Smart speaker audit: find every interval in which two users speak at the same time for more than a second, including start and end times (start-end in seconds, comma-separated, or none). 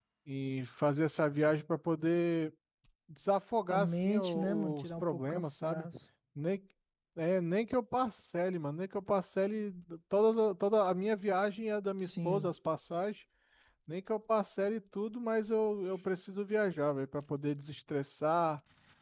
3.7-5.9